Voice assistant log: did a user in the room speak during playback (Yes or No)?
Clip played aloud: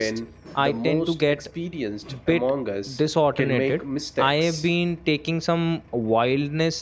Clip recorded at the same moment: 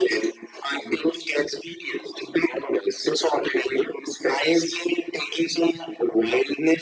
No